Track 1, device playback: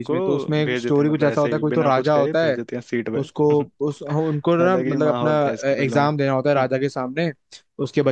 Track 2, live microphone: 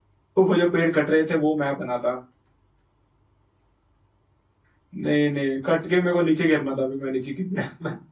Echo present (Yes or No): No